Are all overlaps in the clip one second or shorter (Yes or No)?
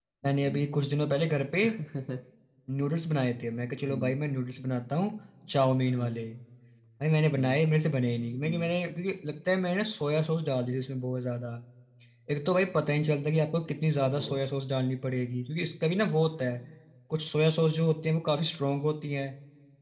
Yes